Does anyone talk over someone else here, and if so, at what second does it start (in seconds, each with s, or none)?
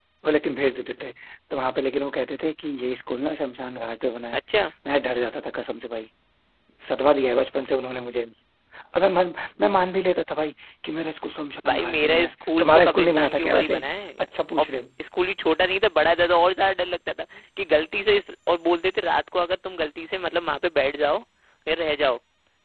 11.6 s